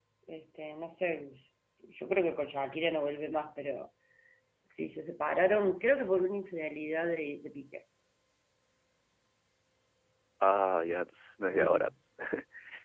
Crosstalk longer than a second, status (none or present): none